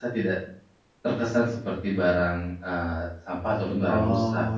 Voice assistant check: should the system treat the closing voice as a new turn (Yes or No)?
Yes